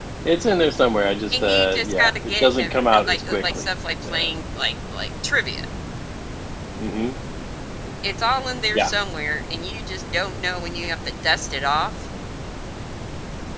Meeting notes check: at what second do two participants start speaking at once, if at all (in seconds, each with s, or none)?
1.3 s